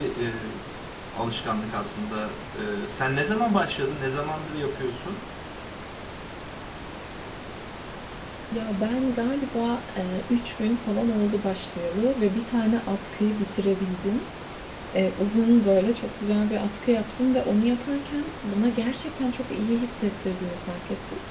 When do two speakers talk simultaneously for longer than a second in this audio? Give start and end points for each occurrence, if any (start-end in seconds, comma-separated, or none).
none